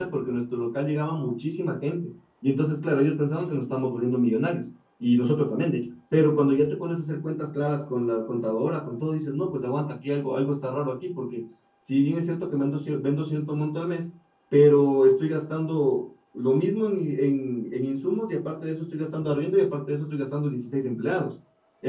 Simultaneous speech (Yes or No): No